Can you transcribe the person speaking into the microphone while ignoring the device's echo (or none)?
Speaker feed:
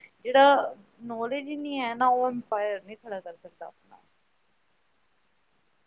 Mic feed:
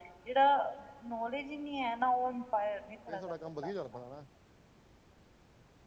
ਫੇਰ ਸਾਡਾ ਕੰਮ ਵਧੀਆ ਚੱਲ ਪੈਣਾ ਨਾ